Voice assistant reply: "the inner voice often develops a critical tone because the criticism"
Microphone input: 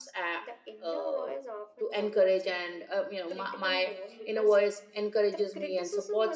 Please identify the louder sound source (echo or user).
user